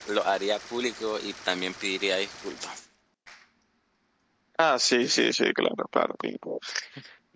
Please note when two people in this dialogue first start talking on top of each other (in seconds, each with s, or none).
none